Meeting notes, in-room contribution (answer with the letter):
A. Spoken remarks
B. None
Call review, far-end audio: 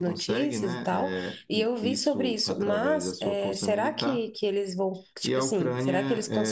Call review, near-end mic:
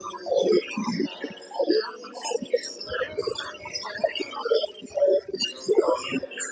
B